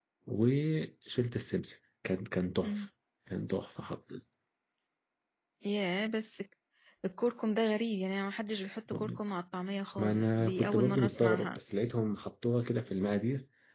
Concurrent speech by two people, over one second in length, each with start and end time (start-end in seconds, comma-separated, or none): 10.0-11.6